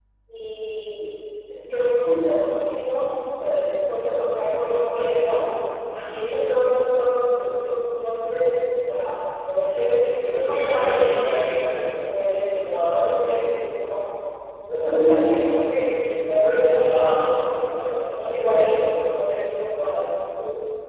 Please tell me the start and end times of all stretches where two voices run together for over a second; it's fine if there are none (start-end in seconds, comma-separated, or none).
10.2-11.9, 16.7-18.6